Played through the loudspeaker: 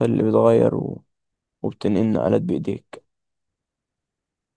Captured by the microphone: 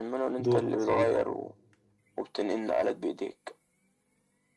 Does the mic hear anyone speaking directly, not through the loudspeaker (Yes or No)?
Yes